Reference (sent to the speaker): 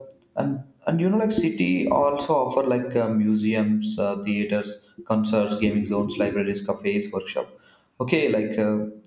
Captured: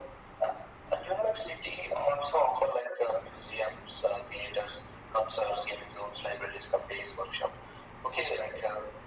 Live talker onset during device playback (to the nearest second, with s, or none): none